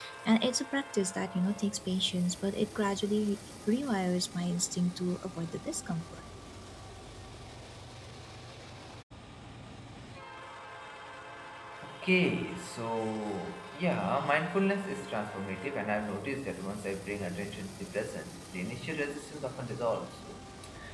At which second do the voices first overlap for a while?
none

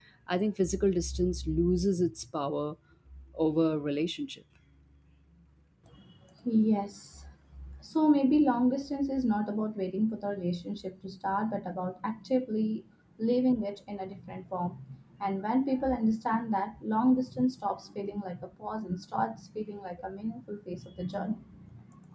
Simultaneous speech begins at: none

